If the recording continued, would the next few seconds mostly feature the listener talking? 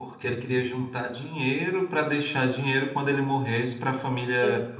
Yes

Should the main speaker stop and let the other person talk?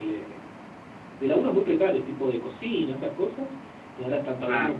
No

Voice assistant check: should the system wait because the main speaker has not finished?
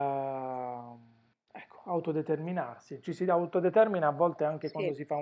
Yes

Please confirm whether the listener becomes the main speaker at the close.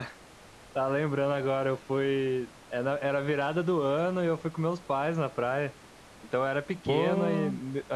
No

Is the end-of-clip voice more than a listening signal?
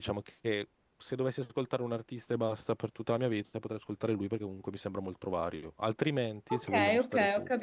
Yes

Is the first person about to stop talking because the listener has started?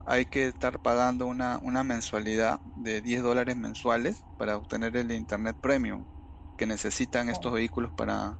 No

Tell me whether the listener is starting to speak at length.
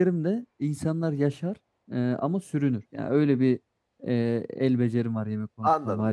Yes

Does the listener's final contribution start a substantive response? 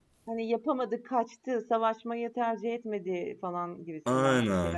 Yes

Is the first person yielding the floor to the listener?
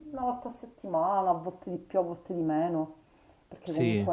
No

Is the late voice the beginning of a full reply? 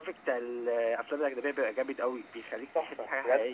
Yes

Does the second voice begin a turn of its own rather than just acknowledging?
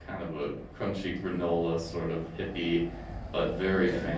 No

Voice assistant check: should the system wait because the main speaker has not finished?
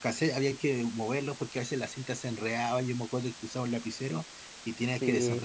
Yes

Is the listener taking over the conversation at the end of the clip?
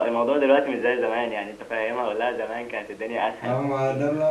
Yes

